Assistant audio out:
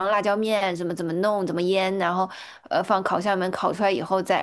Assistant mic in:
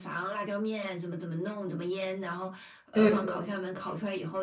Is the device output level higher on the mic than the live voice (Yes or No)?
No